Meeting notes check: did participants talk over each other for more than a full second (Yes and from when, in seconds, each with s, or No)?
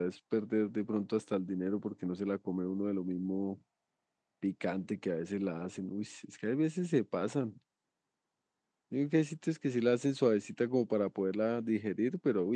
No